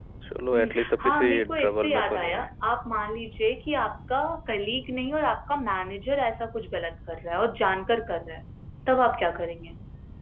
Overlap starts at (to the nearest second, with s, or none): 1 s